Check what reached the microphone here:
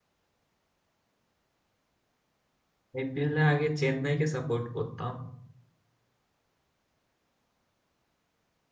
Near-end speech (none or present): present